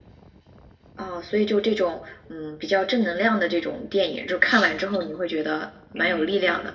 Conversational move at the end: taking over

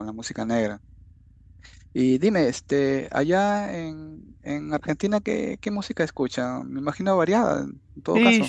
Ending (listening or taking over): taking over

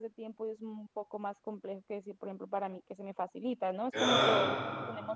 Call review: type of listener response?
listening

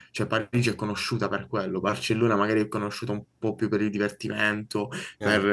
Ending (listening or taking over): listening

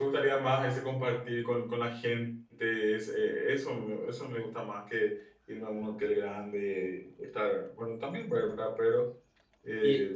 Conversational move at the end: listening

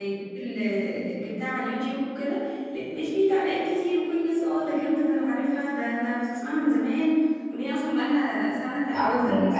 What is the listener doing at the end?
taking over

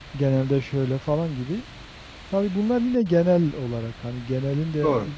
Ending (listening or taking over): listening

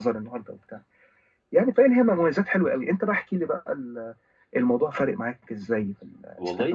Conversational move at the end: taking over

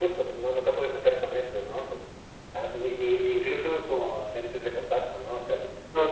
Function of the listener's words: taking over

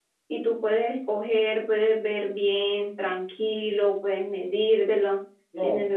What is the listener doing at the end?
listening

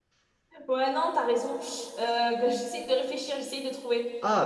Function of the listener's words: taking over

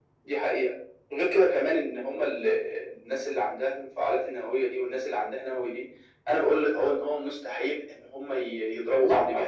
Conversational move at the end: listening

